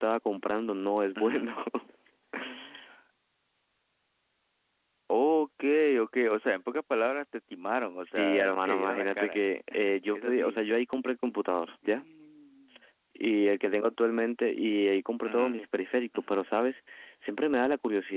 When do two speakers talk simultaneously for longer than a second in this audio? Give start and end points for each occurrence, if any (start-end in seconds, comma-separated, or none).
8.0-9.5